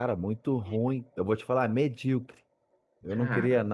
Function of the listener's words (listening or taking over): listening